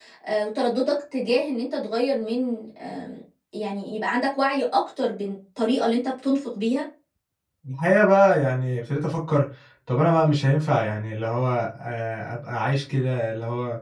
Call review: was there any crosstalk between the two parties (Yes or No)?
No